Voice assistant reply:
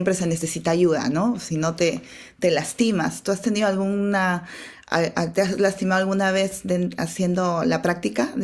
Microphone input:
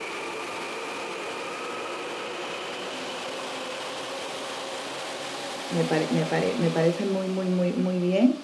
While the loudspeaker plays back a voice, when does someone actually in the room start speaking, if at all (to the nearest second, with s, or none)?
6 s